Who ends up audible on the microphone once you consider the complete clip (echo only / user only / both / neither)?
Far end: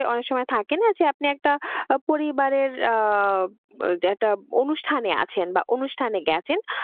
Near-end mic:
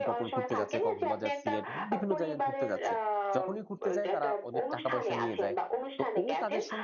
both